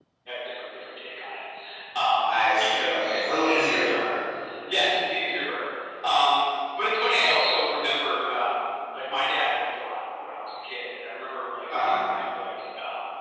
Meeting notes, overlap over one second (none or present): present